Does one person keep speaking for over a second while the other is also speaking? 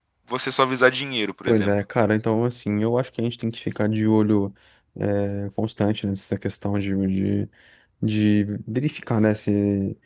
No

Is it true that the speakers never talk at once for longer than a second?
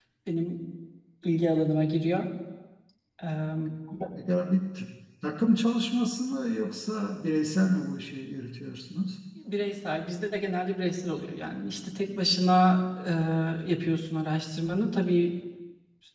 Yes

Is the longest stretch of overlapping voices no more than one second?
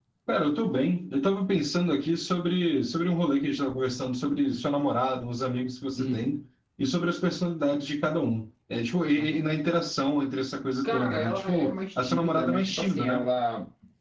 No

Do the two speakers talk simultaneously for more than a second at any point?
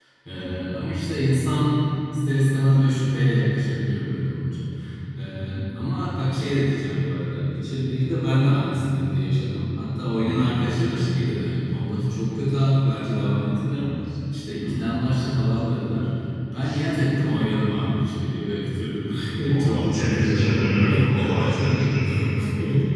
Yes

